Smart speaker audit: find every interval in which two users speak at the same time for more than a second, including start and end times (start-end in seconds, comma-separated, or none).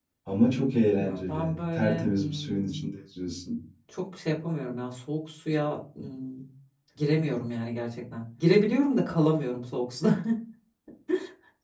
0.9-2.9